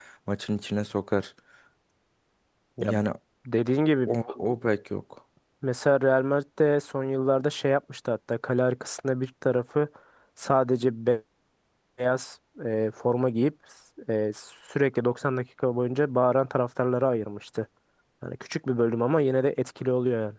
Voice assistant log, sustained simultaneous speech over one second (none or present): none